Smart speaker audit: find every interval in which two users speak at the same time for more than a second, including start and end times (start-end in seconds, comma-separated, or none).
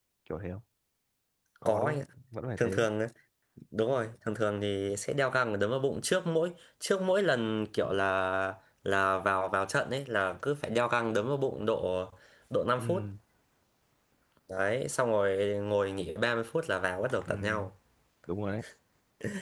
none